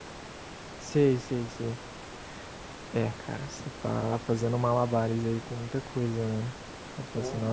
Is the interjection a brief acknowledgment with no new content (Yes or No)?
Yes